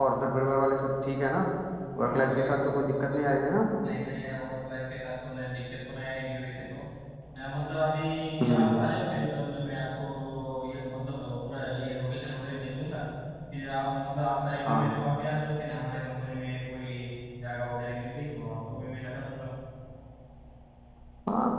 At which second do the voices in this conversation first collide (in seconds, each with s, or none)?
2.0 s